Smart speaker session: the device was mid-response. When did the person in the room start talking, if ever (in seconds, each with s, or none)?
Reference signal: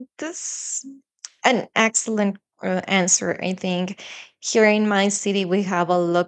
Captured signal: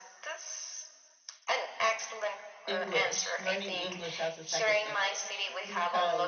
2.7 s